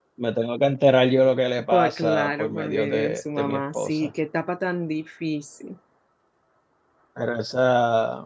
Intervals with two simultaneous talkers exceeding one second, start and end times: 1.7-4.1

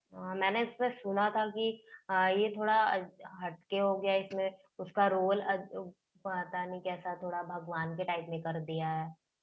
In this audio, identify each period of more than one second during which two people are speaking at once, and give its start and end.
none

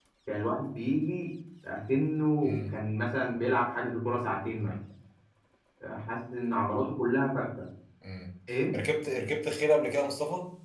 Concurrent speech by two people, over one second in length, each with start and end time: none

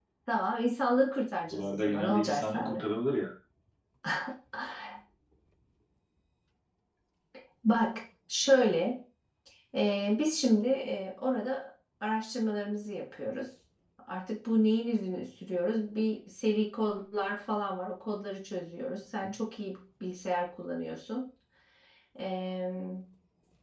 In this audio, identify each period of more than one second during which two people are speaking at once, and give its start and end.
1.5-2.9

